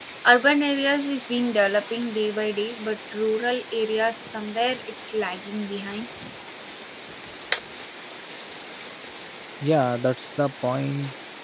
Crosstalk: none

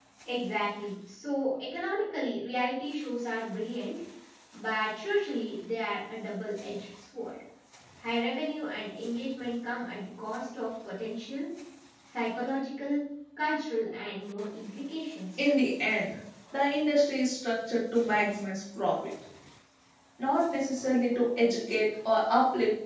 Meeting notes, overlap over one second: none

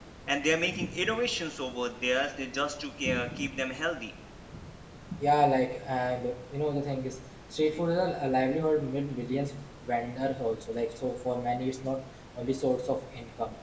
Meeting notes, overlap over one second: none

